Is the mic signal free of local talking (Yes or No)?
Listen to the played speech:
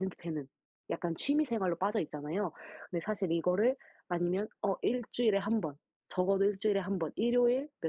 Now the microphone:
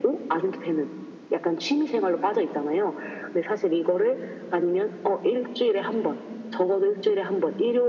Yes